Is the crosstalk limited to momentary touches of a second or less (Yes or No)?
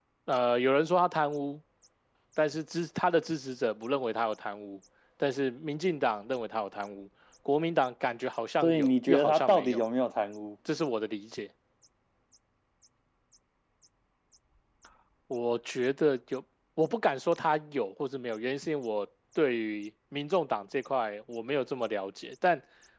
No